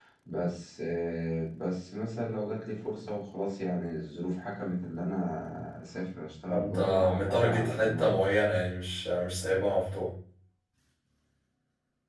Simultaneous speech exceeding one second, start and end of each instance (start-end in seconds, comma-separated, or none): 6.5-8.2